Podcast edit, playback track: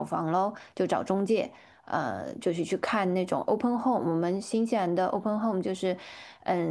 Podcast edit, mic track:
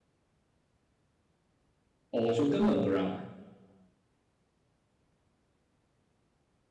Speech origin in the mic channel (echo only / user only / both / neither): user only